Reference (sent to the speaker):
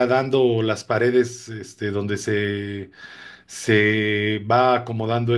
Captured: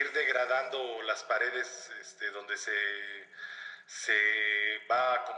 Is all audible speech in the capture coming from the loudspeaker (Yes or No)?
Yes